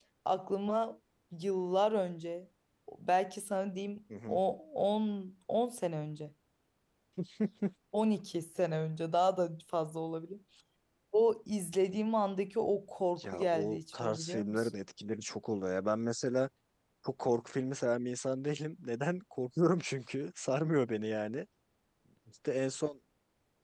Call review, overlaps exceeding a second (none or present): present